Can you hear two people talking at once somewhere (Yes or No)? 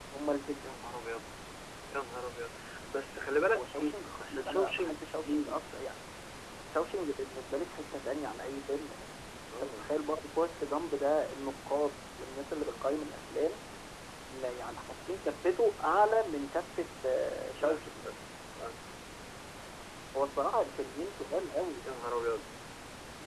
Yes